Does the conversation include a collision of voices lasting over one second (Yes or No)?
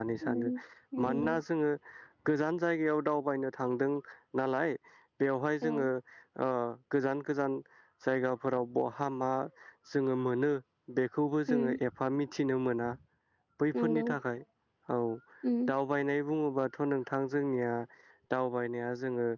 No